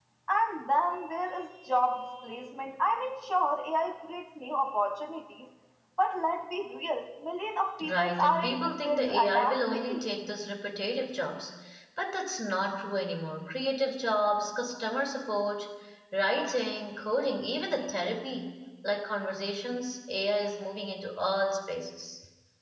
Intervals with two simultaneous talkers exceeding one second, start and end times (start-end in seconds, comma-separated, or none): 7.9-10.0